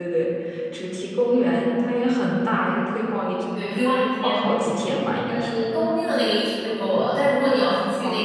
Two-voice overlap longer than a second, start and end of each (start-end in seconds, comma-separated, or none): none